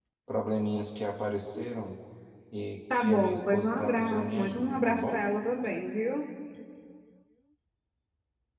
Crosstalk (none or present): present